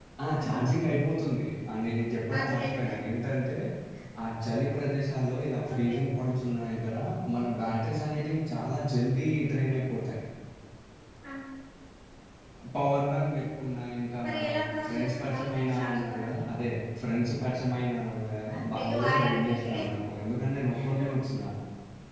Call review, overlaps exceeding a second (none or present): present